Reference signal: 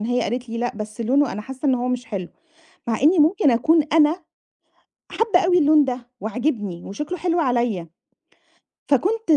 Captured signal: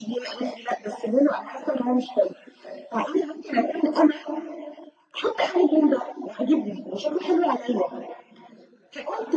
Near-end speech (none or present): none